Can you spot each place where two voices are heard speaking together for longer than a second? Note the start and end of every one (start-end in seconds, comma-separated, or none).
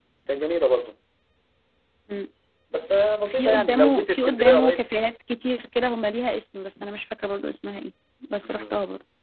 3.2-4.9